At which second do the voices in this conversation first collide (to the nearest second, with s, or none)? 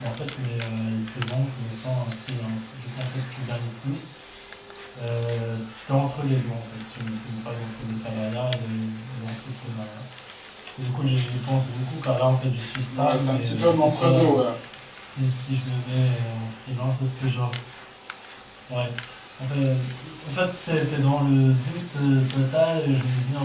13 s